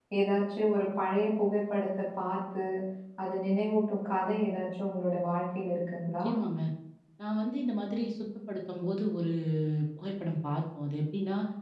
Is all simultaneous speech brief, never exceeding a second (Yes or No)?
Yes